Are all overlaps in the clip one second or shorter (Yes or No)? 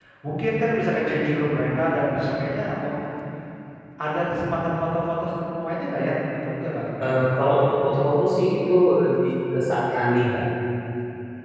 Yes